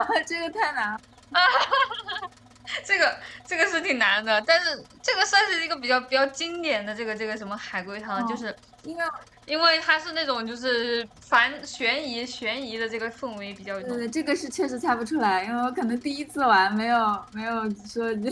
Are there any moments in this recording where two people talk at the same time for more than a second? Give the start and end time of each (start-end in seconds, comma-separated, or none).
none